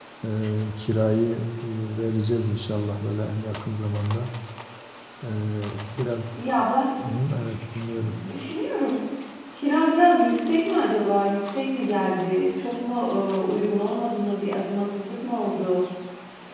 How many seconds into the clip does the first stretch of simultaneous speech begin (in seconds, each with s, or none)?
none